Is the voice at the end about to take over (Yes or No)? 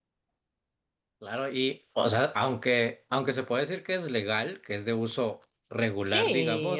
Yes